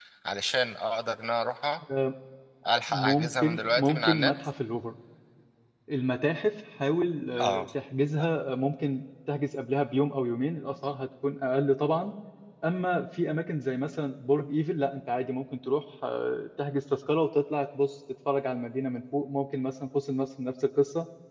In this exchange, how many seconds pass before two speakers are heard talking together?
2.9 s

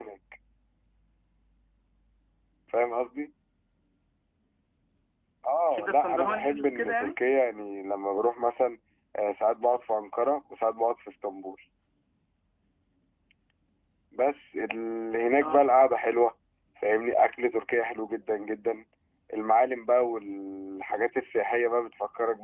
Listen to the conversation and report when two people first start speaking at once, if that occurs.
5.7 s

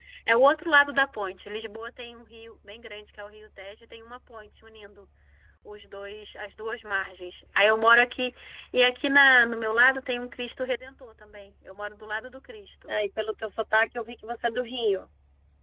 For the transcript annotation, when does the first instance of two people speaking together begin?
none

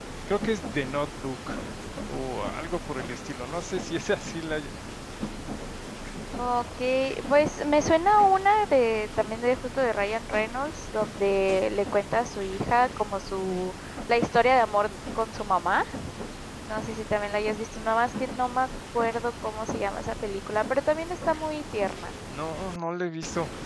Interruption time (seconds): none

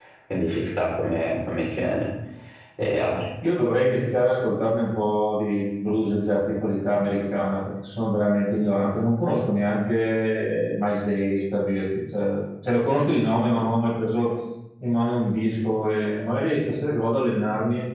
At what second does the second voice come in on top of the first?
none

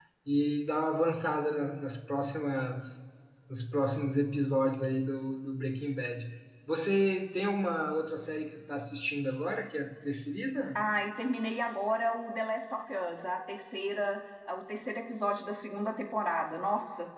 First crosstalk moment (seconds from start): none

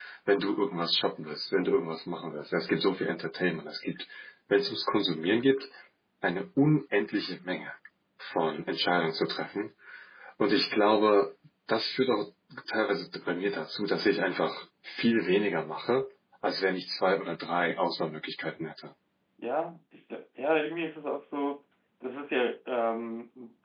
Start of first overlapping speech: none

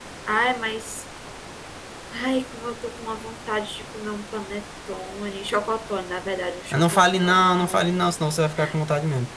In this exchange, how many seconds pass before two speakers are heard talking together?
6.7 s

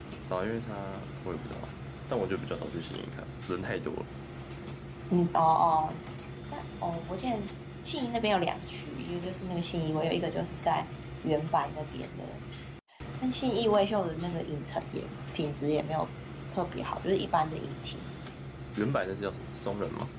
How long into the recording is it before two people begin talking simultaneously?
none

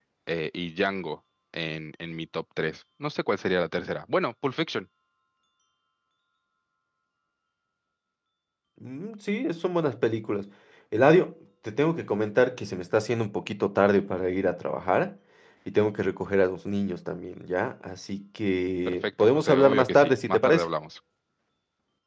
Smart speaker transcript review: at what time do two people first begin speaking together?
18.9 s

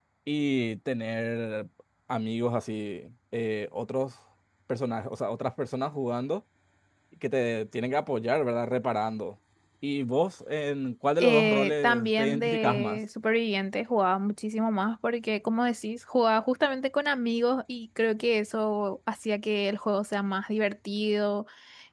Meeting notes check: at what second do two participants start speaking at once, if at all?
11.2 s

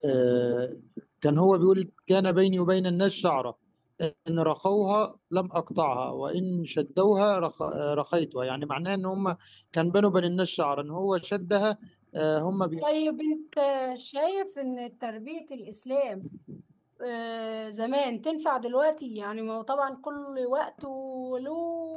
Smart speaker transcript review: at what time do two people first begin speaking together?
none

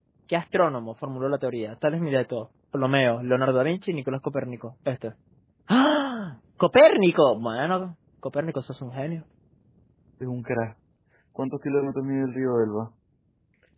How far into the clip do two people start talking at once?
none

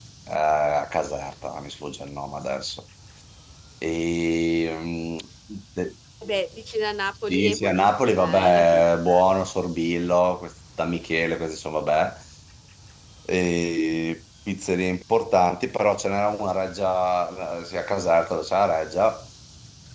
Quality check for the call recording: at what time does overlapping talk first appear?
7.3 s

